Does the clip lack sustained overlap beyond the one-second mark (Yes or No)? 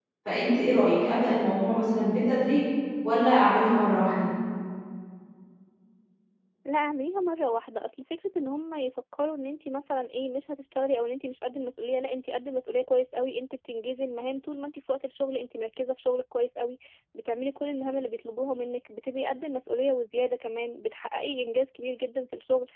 Yes